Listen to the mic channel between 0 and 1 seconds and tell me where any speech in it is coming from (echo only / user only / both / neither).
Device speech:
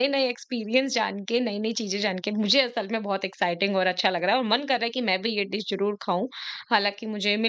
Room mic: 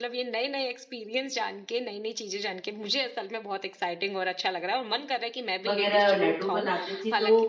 echo only